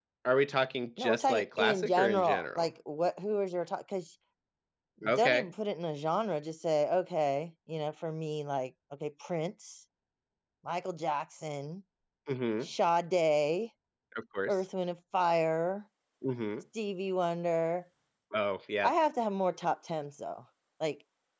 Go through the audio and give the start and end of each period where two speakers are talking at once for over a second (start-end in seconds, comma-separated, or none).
1.0-2.7